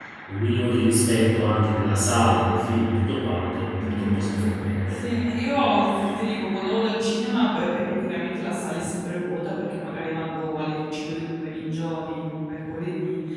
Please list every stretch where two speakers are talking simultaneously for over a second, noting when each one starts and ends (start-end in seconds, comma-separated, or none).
none